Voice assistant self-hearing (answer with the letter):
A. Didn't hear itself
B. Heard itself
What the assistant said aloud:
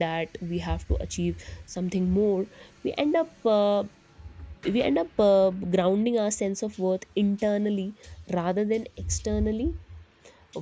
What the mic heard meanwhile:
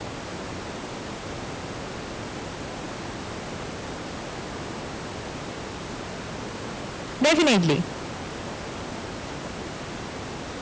A